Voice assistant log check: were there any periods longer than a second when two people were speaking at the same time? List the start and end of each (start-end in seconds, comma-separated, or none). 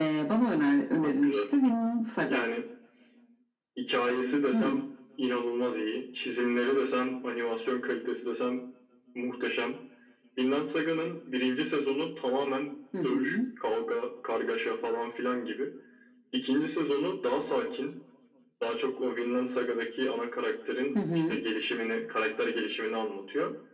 none